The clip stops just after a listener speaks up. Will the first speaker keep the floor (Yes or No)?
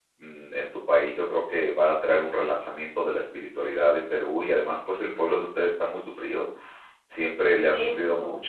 Yes